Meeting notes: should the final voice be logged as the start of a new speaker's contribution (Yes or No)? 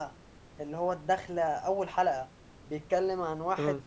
No